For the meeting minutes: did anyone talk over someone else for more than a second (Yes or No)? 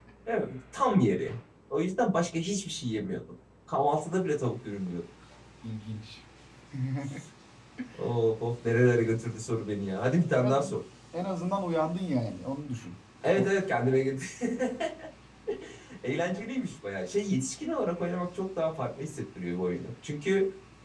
No